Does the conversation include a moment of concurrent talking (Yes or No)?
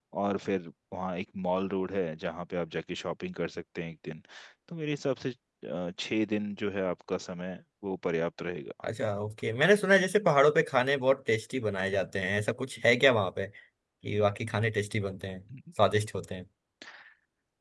No